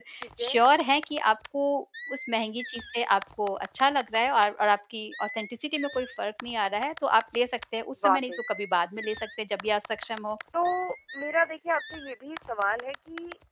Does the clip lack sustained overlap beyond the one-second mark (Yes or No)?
Yes